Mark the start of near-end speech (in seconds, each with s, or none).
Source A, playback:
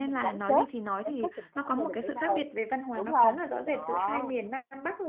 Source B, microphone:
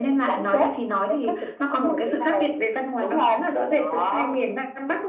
none